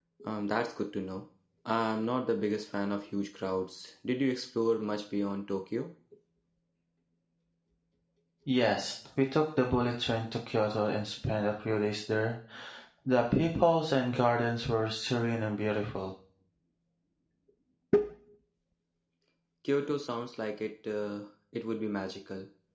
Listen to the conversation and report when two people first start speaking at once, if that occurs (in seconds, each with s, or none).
none